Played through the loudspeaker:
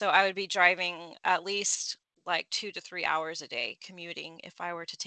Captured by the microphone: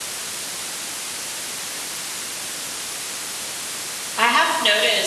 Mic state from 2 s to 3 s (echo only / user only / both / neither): neither